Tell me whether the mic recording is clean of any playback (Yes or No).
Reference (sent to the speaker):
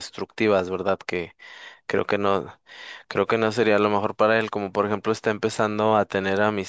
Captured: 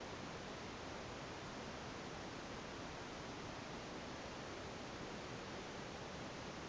Yes